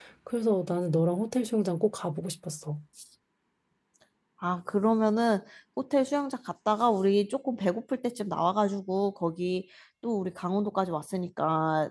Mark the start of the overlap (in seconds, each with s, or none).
none